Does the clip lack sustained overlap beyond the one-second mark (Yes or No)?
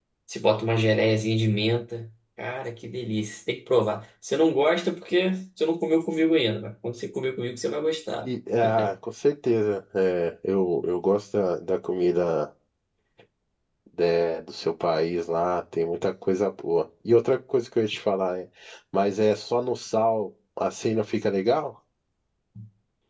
Yes